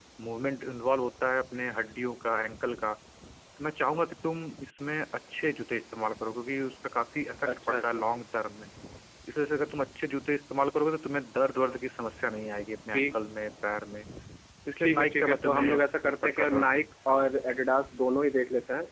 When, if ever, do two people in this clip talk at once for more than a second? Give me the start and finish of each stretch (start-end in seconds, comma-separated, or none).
14.8-17.3